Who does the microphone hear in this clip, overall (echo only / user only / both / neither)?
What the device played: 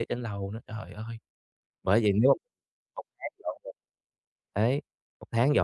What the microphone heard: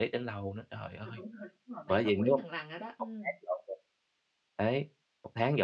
both